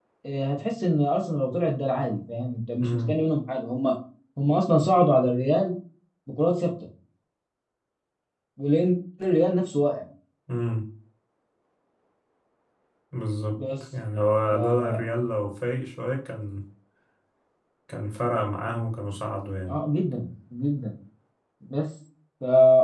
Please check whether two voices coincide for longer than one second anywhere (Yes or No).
No